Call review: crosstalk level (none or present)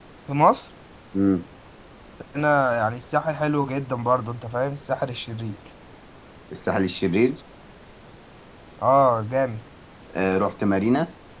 none